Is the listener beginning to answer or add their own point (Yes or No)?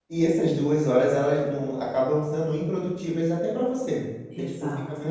No